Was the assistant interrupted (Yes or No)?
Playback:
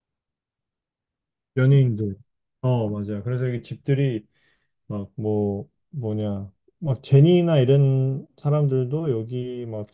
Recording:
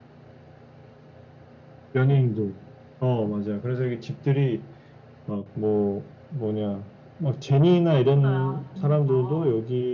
Yes